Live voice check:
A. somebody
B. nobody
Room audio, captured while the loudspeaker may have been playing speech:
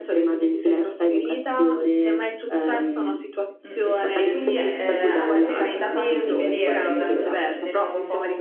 A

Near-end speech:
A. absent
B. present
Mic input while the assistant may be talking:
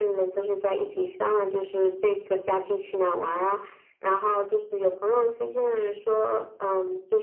A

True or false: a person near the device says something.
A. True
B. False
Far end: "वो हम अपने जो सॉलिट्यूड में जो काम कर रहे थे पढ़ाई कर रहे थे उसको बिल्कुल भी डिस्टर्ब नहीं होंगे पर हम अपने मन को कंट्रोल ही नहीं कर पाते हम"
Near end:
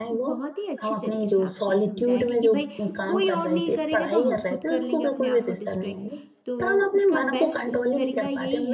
A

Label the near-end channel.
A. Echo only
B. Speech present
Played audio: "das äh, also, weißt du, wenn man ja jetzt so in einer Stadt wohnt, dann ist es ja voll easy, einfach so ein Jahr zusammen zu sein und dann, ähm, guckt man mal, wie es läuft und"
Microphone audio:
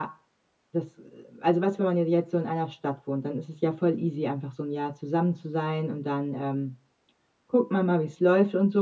A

